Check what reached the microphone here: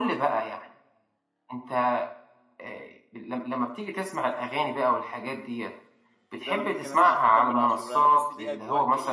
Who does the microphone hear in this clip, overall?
both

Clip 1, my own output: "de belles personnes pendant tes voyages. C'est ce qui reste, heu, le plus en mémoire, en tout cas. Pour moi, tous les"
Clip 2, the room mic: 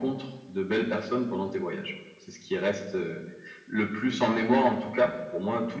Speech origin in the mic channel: echo only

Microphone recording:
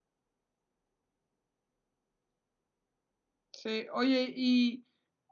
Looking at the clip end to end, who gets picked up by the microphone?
user only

